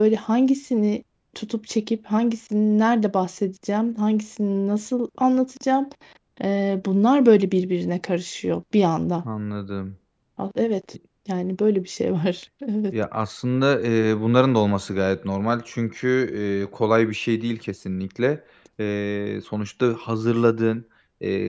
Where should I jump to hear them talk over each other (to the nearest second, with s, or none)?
none